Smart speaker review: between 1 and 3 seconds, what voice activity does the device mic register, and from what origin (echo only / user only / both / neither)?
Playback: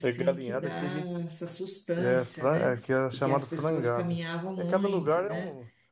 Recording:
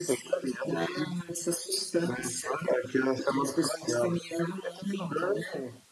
echo only